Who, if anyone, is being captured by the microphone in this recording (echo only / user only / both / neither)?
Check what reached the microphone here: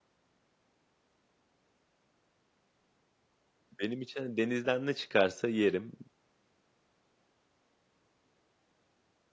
user only